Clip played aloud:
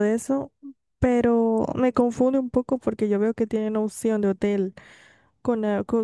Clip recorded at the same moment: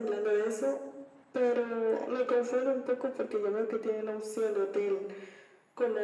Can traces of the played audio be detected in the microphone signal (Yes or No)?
Yes